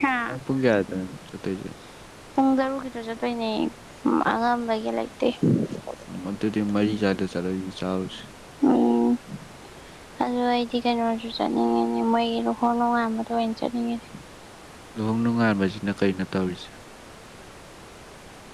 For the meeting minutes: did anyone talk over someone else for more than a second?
No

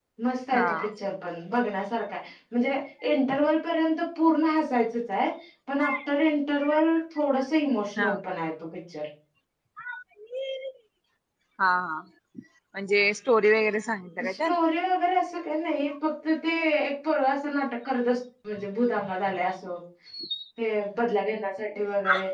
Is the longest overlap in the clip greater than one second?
No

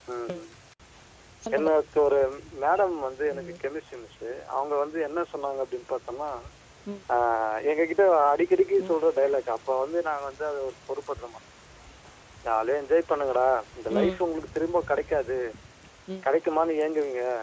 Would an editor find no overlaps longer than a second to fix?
Yes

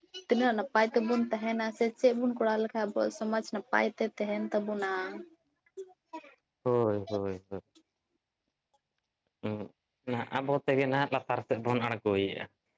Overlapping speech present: No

